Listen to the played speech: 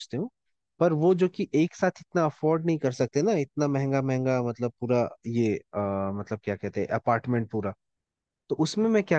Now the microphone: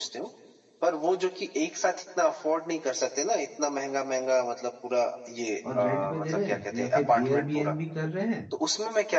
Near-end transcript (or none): और रेंट पे दे रहे हैं या फिर एयरबीएनबी कर रहे हैं